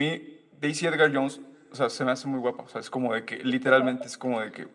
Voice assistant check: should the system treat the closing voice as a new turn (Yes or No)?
No